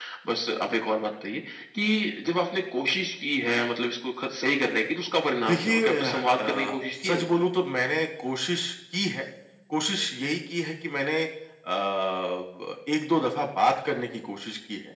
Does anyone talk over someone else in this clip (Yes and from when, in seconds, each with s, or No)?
Yes, from 5.5 s